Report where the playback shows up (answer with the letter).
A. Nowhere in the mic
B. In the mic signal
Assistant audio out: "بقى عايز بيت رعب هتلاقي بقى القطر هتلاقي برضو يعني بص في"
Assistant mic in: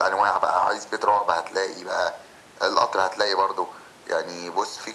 B